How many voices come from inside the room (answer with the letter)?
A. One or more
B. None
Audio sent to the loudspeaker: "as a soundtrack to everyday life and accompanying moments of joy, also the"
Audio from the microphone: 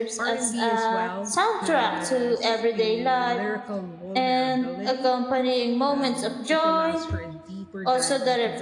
A